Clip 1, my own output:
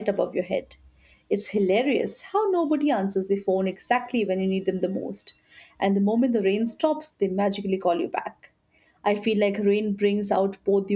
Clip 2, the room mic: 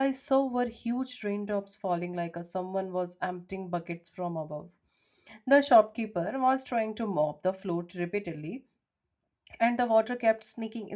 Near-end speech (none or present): present